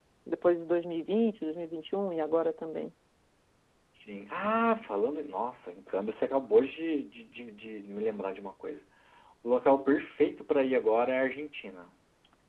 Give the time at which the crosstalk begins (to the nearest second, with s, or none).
none